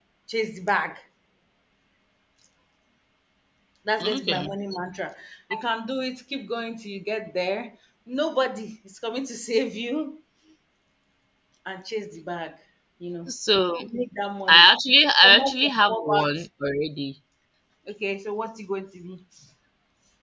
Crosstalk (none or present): present